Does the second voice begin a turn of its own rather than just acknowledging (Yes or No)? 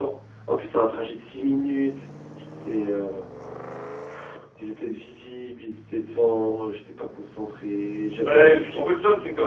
Yes